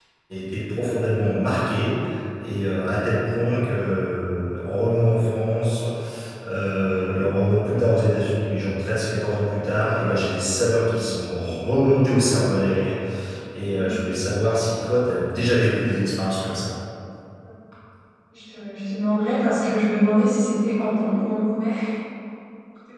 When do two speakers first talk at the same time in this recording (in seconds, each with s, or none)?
none